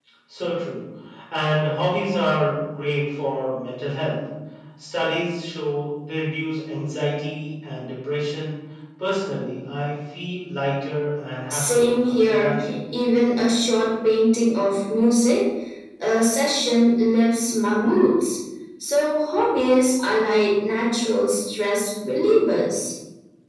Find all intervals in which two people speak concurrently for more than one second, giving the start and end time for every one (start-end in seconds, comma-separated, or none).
11.5-12.7